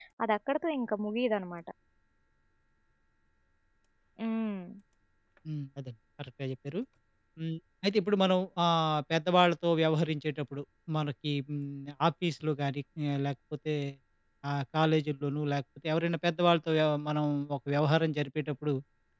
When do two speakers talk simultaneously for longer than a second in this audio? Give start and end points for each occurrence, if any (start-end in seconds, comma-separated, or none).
none